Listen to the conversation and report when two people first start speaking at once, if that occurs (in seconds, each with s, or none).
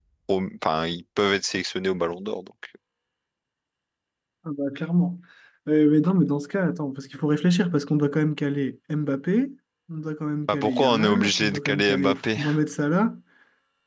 10.5 s